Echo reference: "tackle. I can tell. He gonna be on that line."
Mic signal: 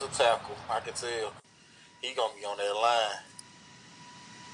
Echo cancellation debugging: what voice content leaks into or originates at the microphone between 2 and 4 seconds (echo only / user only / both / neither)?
echo only